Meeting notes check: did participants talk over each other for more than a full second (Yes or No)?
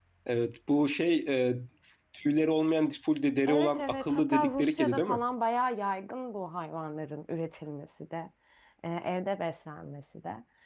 Yes